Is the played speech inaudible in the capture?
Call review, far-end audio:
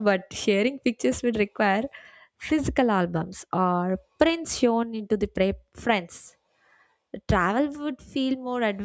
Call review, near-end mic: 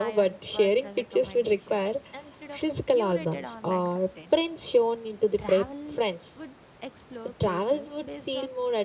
No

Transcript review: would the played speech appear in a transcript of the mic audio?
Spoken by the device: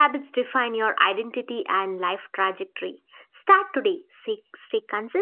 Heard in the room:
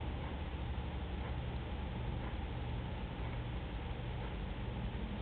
No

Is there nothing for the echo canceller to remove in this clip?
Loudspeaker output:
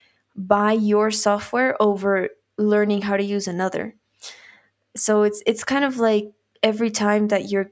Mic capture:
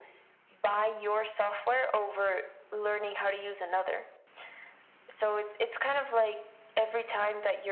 No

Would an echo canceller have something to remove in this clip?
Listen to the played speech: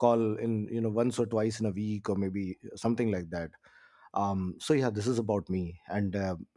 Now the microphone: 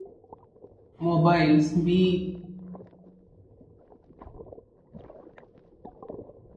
No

